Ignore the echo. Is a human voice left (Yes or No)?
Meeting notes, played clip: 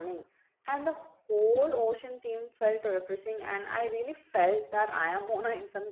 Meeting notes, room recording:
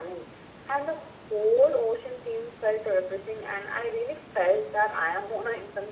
No